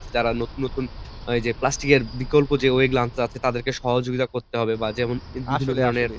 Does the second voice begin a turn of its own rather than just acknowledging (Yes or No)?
No